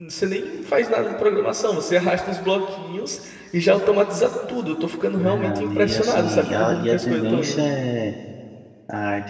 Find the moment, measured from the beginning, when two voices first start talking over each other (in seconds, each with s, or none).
5.2 s